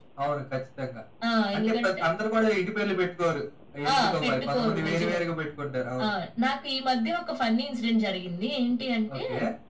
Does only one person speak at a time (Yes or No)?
No